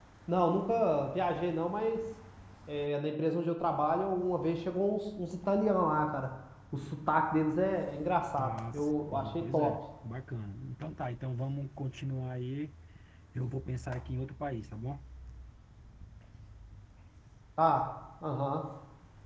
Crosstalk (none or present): present